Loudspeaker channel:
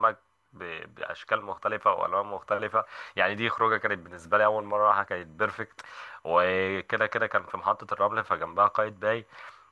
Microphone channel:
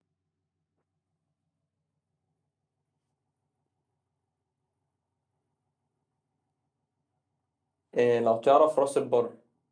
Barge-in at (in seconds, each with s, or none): 8.0 s